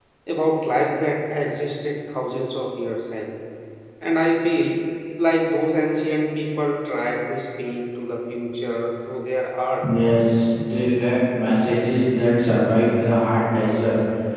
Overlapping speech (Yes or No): No